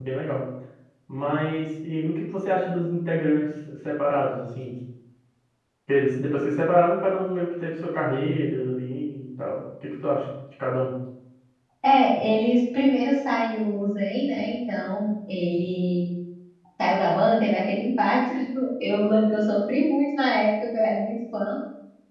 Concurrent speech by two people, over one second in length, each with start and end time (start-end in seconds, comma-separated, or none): none